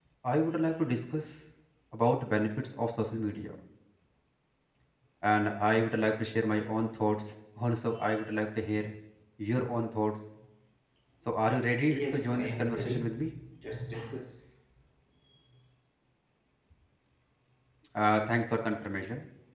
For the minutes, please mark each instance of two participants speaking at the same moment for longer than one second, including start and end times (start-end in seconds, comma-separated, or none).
11.9-13.2